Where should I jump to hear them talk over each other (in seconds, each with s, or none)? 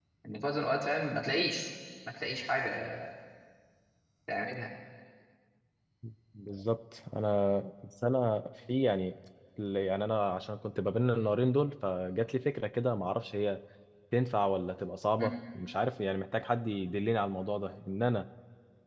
none